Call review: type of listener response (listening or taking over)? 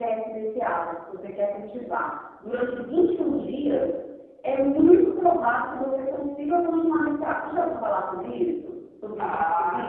taking over